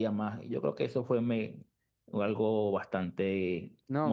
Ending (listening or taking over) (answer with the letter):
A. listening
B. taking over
B